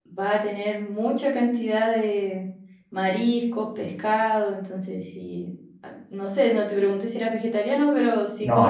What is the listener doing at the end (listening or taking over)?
taking over